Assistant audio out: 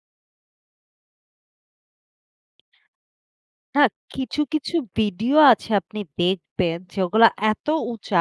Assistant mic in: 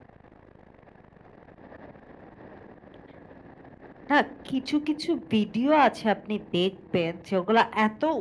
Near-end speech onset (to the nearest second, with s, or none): none